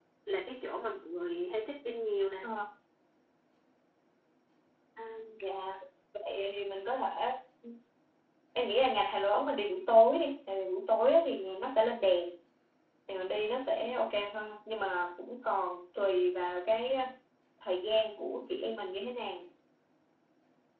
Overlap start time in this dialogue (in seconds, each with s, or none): none